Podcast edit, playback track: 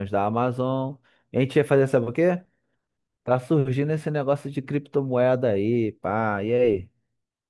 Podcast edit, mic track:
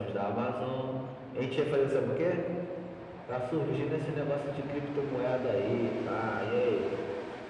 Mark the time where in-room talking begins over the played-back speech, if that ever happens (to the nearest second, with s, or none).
none